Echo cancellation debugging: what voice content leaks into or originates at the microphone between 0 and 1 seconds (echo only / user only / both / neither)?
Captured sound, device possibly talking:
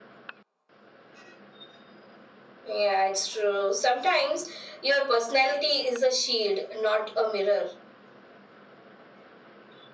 neither